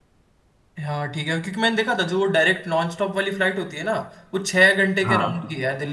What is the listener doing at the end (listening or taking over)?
listening